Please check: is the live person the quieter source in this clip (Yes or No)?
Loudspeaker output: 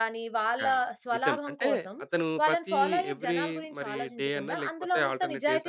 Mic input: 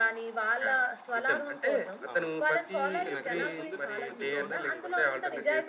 Yes